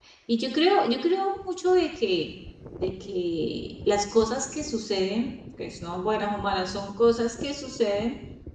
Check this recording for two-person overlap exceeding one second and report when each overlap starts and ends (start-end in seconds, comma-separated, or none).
none